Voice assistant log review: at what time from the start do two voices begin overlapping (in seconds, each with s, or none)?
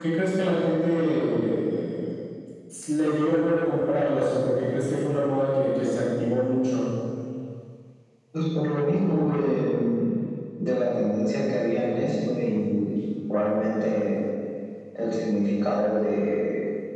none